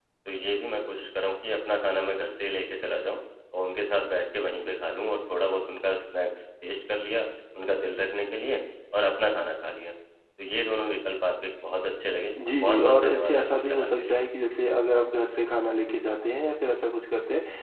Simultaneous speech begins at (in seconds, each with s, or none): 12.4 s